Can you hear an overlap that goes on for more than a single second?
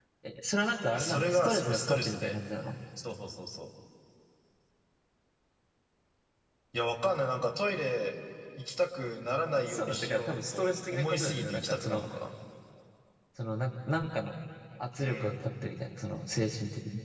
Yes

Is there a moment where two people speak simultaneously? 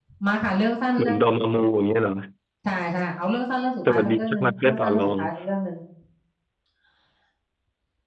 Yes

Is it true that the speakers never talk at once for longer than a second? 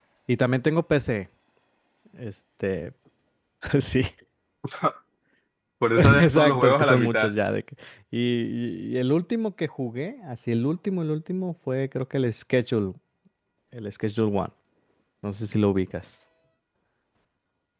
No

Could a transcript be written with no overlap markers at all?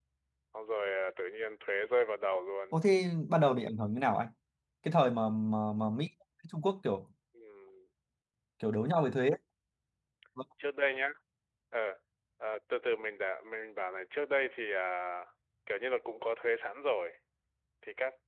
Yes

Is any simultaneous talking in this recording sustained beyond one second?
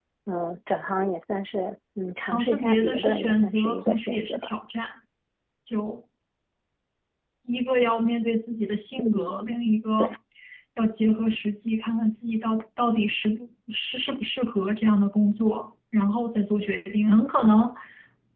Yes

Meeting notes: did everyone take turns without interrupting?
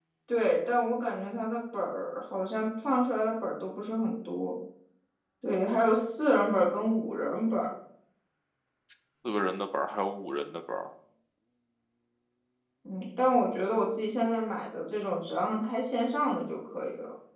Yes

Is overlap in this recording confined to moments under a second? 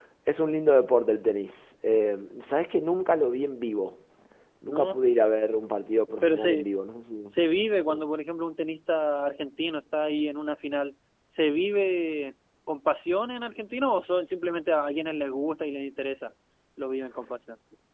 Yes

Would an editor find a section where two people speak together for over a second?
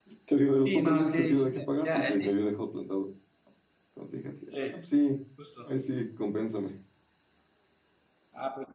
Yes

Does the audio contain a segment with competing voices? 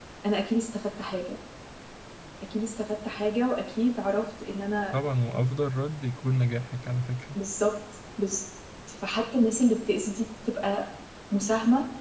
No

